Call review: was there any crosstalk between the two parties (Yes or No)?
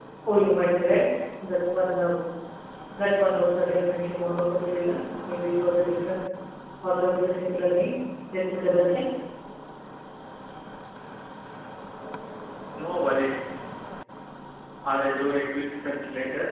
No